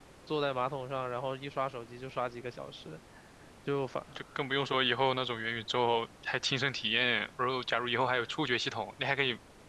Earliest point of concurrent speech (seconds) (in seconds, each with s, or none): none